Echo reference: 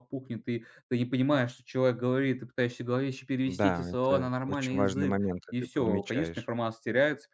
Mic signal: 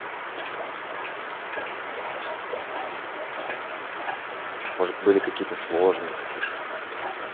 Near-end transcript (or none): может, были какие-то сложности.